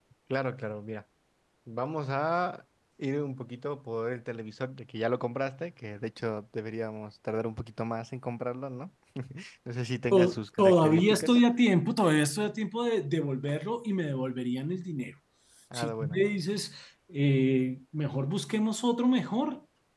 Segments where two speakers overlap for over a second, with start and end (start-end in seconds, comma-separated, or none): 10.1-11.4